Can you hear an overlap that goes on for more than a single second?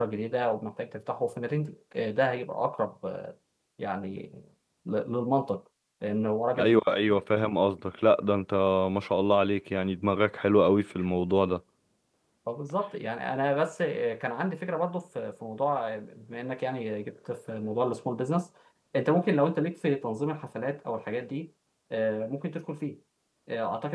No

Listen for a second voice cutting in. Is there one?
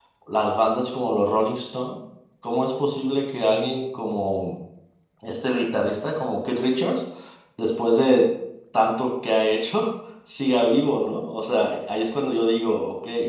No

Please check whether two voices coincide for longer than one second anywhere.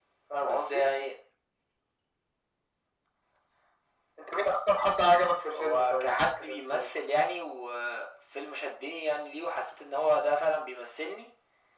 Yes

